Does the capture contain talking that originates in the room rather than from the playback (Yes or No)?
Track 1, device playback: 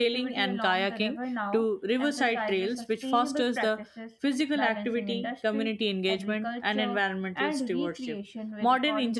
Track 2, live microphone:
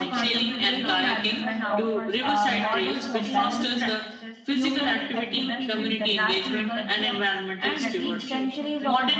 Yes